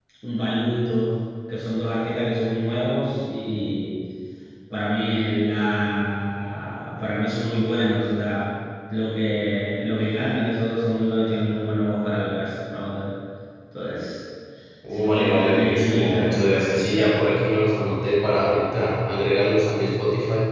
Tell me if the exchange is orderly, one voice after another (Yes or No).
No